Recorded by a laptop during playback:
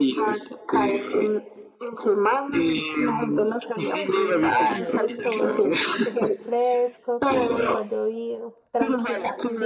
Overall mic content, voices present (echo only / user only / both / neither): both